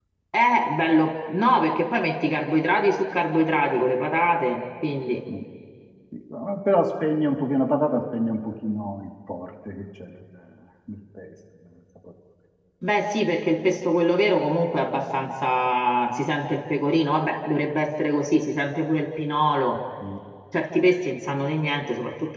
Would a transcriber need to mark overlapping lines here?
No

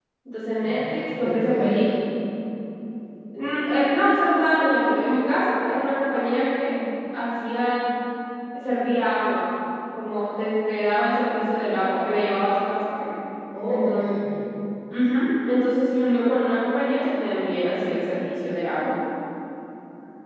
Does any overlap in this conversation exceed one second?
Yes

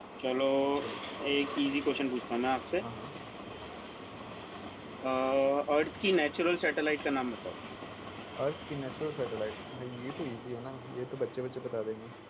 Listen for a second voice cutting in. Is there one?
No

